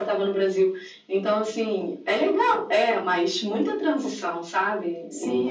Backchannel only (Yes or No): No